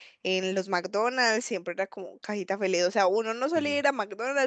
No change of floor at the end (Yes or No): Yes